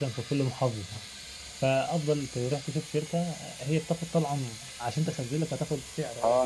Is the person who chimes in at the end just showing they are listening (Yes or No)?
No